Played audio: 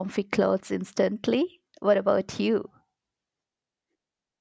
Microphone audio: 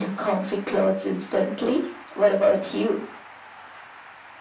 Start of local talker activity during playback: none

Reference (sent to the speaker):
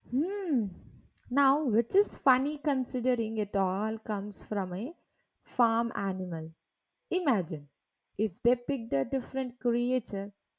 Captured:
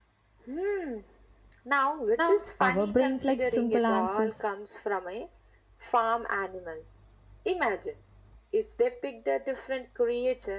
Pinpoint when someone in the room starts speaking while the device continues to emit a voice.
2 s

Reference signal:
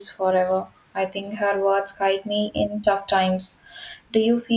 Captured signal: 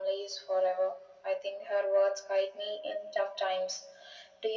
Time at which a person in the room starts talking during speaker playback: none

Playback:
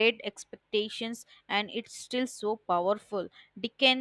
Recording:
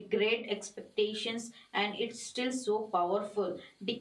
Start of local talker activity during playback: none

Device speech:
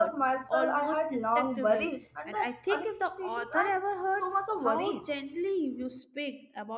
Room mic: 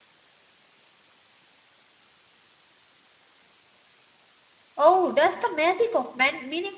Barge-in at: 5 s

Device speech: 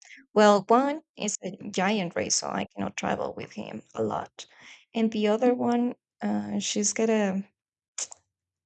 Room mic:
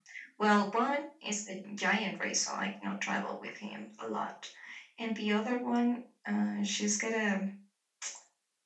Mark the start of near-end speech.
none

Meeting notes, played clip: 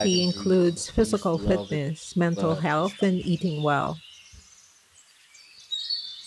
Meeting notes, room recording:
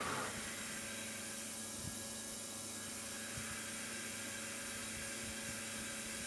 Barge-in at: none

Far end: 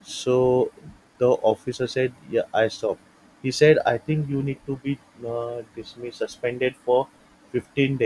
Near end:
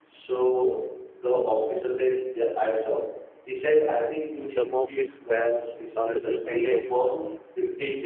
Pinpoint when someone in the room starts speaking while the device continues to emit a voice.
4 s

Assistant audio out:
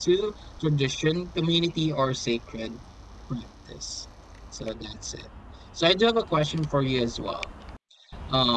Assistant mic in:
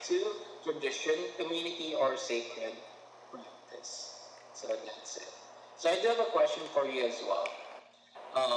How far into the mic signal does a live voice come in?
none

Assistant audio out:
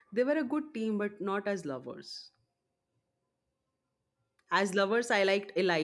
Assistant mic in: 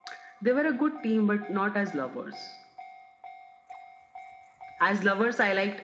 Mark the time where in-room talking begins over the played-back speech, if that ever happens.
none

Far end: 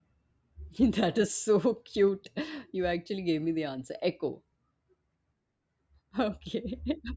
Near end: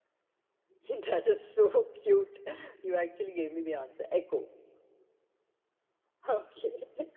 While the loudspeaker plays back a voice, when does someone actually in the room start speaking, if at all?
none

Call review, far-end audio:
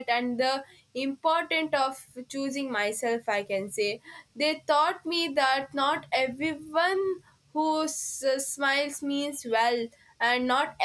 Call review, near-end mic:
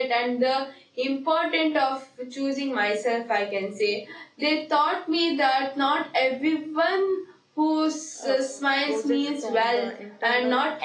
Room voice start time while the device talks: 8 s

